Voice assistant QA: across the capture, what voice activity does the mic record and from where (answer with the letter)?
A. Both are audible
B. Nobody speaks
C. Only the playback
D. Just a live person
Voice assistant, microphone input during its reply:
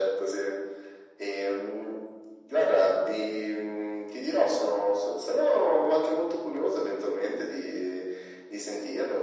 C